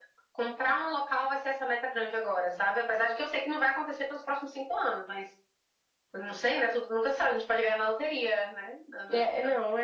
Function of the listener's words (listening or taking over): taking over